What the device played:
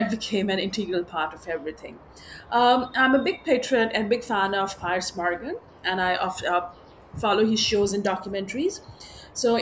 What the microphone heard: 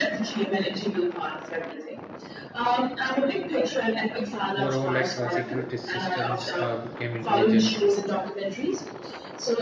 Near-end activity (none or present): present